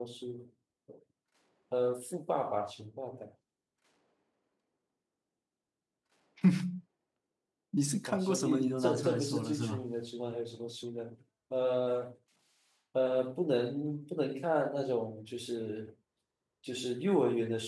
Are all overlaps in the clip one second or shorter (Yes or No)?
No